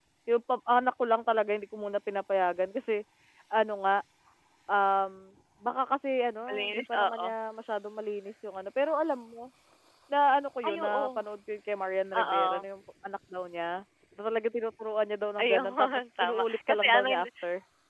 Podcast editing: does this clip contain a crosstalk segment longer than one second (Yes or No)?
Yes